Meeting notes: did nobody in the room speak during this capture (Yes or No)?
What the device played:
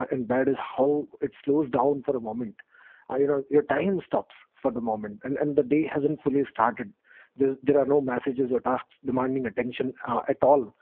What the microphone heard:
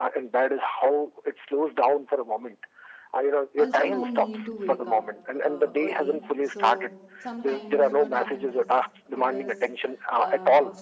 No